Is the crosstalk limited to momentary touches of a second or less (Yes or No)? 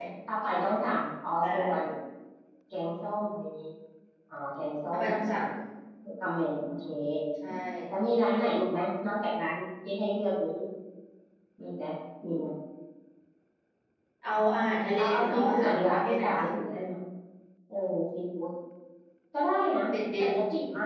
No